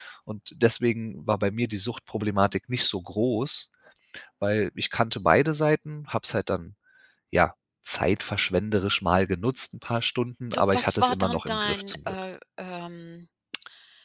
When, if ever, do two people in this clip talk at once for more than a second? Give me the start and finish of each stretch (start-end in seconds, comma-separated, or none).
10.5-12.1